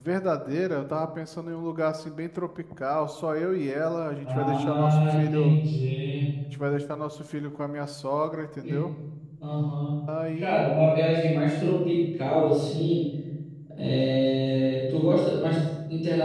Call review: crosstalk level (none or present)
present